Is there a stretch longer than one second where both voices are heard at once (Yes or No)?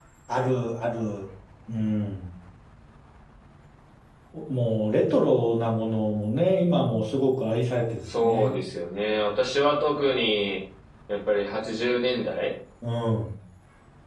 No